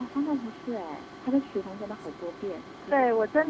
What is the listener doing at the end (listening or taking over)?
taking over